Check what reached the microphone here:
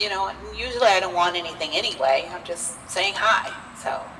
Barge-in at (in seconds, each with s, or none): none